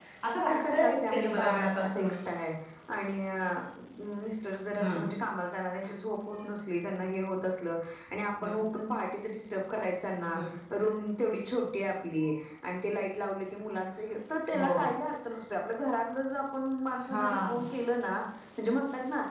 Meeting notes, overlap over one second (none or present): present